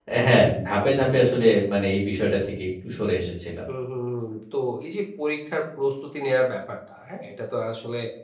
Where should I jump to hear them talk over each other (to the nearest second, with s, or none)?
none